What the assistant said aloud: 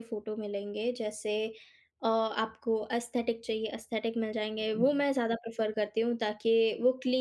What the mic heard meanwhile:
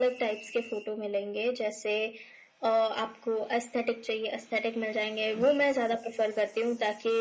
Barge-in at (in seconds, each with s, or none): none